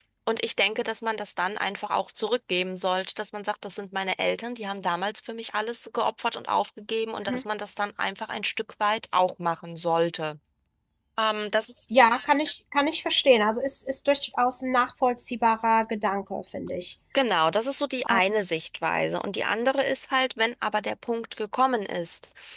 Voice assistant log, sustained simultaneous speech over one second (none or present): none